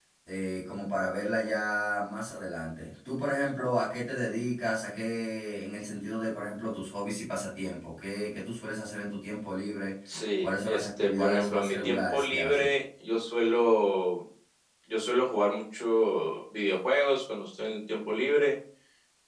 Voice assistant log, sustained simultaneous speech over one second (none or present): present